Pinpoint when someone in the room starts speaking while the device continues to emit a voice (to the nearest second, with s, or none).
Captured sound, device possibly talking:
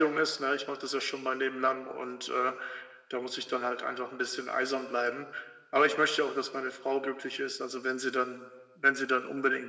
none